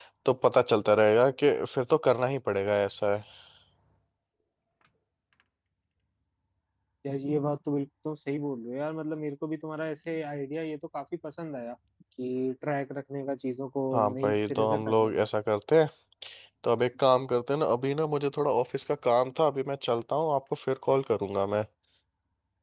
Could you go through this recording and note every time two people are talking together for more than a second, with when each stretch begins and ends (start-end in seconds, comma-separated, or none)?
13.9-15.2